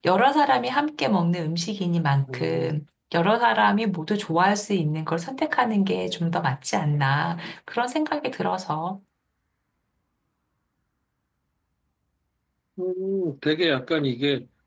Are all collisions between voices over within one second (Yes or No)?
Yes